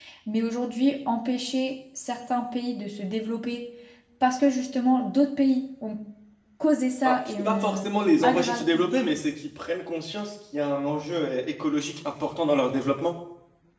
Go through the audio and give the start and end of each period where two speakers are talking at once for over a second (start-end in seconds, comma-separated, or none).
7.0-8.6